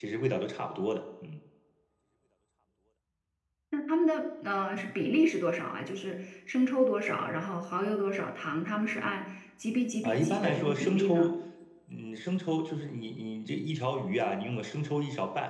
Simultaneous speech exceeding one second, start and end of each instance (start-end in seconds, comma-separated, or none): 10.0-11.3